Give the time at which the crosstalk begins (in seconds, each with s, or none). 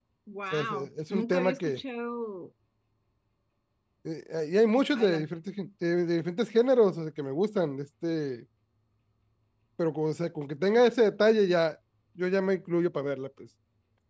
0.5 s